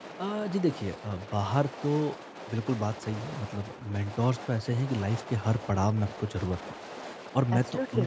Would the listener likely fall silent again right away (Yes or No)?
Yes